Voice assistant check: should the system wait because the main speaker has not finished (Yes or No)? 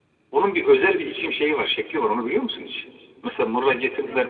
Yes